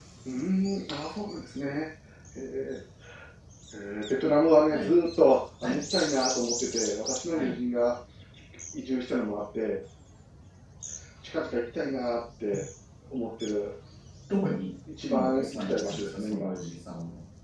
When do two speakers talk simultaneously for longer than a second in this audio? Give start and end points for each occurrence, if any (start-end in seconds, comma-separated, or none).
15.1-16.5